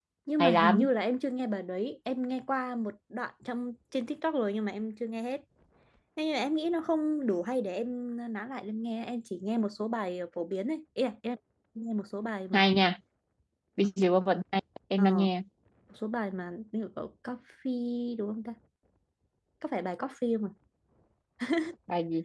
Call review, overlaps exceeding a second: none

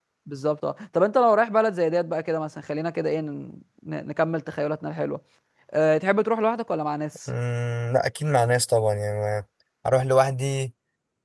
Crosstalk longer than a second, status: none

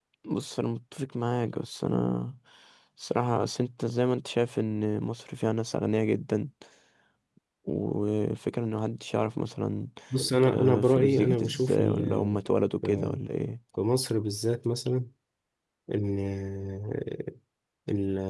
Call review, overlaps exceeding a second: present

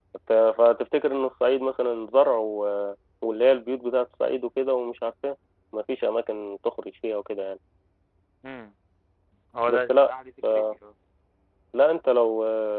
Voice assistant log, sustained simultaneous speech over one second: none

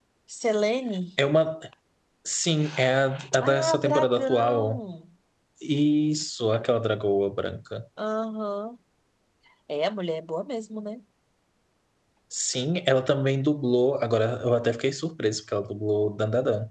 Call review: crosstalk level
present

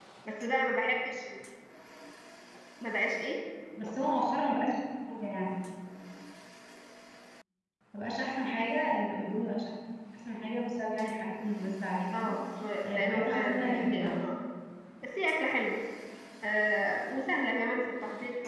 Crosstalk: present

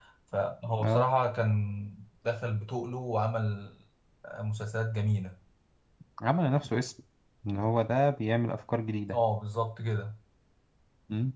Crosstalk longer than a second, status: none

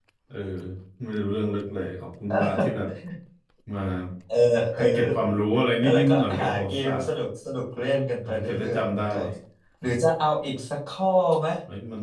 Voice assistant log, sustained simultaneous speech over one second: present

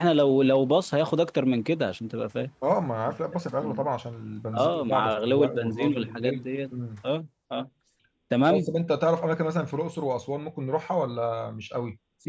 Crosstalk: present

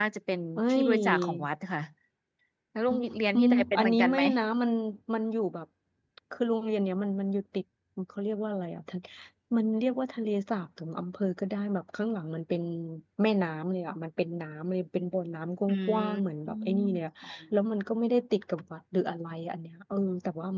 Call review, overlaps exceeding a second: present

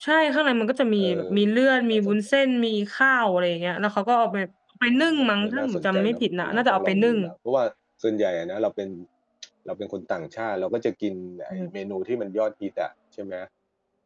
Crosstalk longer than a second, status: present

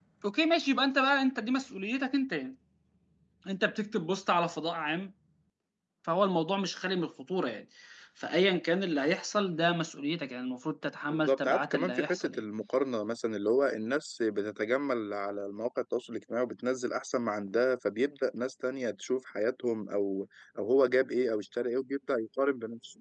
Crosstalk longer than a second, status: present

